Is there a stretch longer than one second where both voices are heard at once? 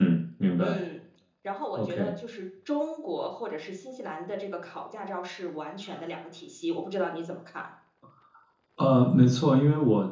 No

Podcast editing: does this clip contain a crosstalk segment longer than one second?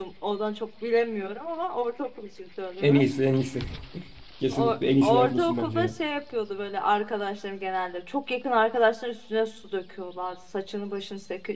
Yes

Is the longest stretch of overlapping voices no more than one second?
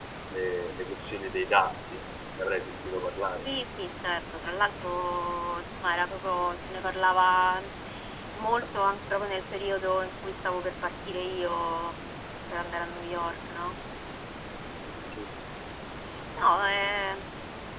Yes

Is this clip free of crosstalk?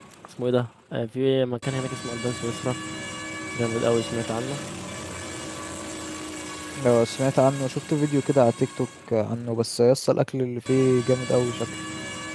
Yes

